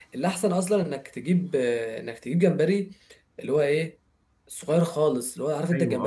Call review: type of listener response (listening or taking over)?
taking over